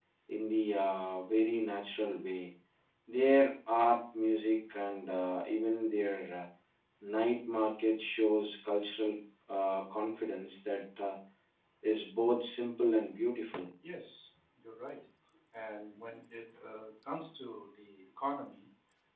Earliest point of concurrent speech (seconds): none

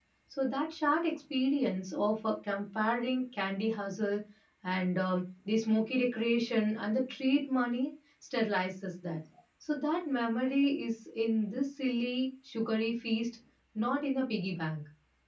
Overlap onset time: none

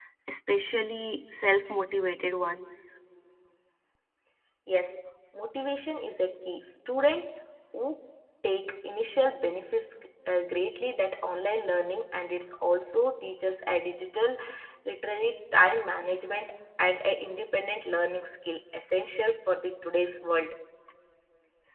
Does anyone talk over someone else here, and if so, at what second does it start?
none

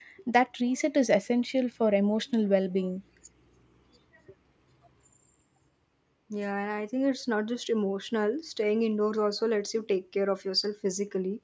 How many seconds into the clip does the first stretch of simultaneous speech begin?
none

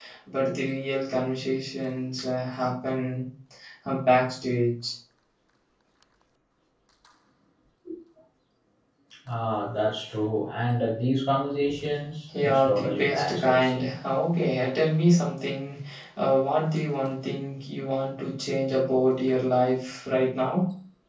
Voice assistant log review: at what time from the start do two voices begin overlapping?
12.3 s

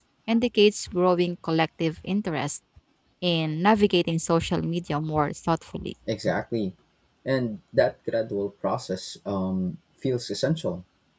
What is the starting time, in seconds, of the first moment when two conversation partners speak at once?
none

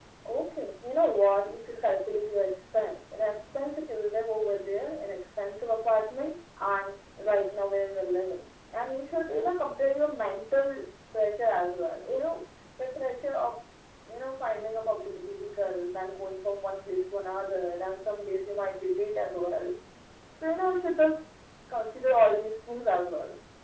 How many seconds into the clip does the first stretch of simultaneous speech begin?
none

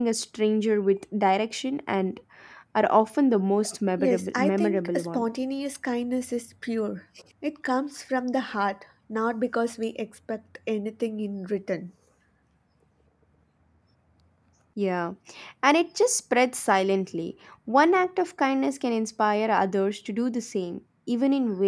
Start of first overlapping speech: 4.0 s

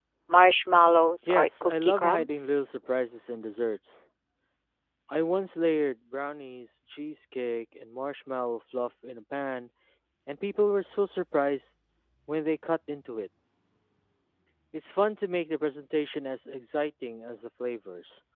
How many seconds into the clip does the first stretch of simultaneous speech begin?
1.3 s

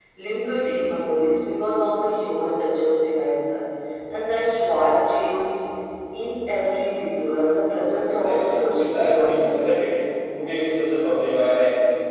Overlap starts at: 8.1 s

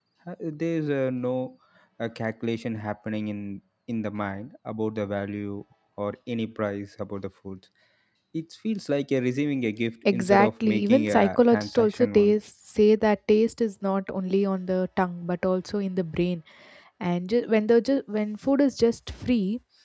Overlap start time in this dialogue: 10.1 s

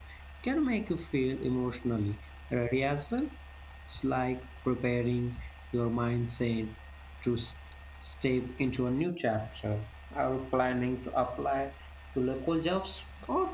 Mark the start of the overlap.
none

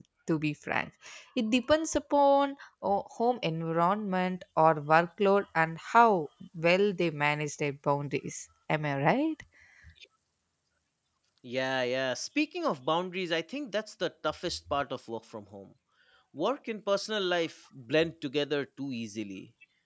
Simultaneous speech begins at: none

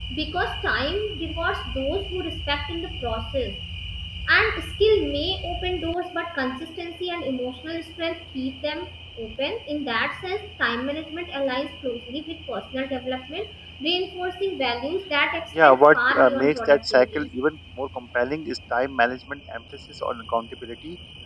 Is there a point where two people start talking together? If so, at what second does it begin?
15.6 s

